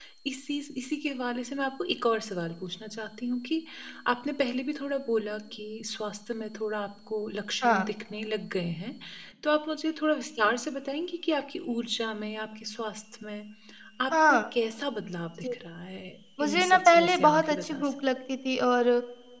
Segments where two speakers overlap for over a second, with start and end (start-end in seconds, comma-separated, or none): 16.4-17.9